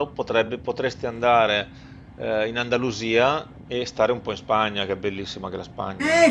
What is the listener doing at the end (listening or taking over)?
taking over